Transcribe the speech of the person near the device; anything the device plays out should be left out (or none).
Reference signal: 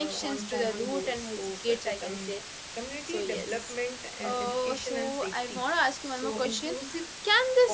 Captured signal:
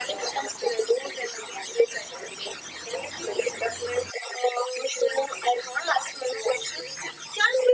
none